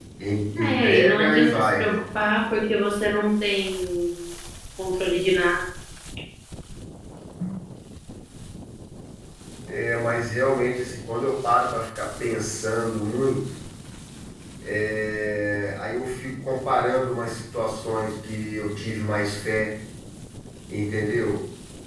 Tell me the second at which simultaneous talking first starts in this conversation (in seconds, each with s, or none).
0.6 s